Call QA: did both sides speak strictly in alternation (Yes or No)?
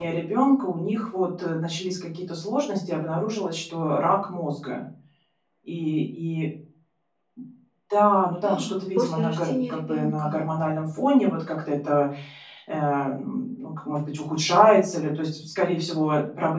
No